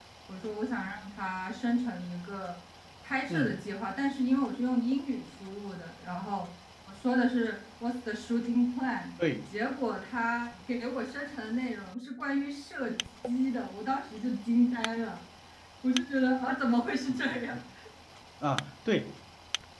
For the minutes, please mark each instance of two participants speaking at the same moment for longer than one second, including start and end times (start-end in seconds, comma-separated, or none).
none